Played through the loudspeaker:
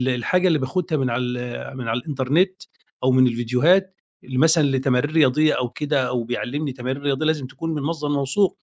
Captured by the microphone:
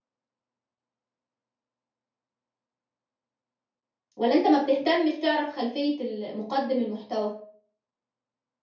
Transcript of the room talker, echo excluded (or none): والّا أنت ما بتهتمش تعرف خلفية ال مُقدِّم المحتوى؟